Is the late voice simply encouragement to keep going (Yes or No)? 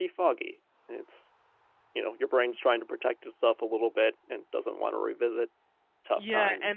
No